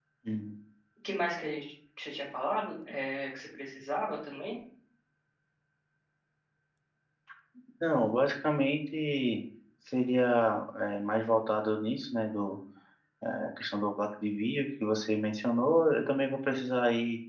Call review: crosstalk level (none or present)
none